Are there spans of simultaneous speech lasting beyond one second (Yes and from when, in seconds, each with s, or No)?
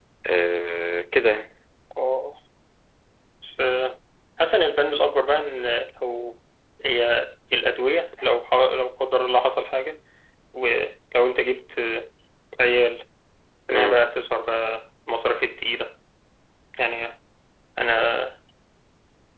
No